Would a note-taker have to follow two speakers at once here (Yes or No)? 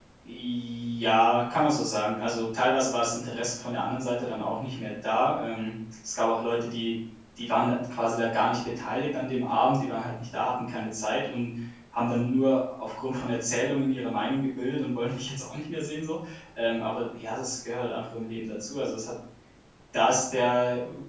No